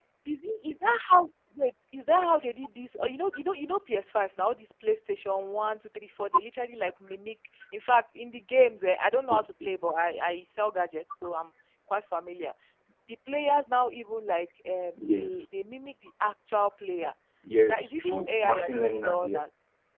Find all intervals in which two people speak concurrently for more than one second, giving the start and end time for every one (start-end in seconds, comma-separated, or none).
17.6-19.4